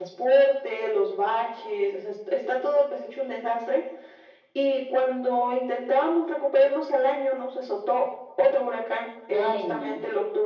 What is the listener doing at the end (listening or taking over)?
listening